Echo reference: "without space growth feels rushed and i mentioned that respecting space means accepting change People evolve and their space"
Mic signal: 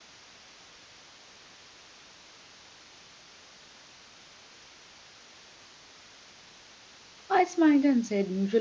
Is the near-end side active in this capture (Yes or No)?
Yes